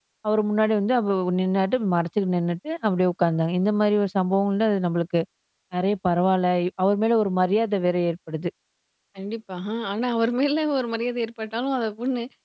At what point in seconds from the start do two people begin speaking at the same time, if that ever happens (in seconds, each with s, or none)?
none